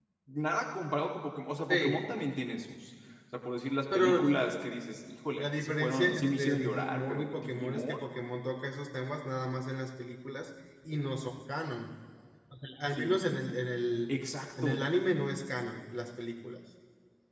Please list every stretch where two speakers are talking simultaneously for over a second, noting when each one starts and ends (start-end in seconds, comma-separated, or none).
5.4-8.1